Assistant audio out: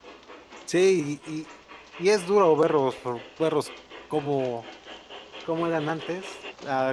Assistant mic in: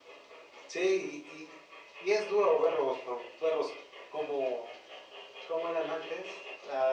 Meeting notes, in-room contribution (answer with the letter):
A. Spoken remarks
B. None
B